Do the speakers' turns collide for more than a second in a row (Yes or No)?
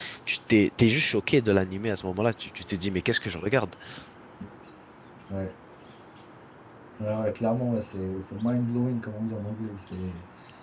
No